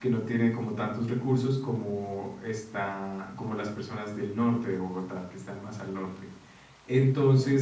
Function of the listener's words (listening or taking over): listening